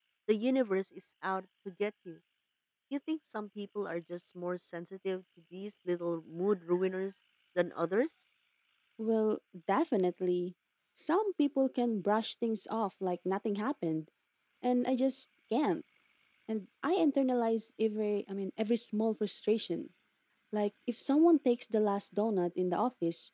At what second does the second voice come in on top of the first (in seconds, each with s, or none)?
none